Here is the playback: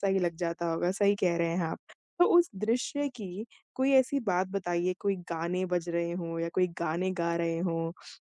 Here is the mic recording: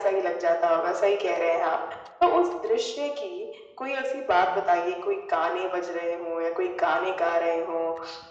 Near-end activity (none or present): none